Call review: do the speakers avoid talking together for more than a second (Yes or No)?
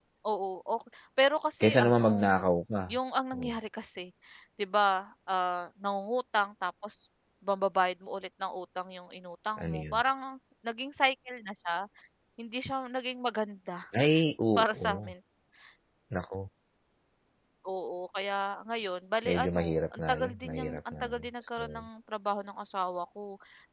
No